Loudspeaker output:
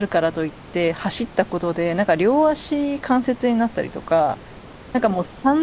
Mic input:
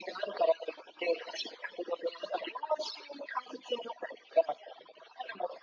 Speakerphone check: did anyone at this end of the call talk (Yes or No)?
No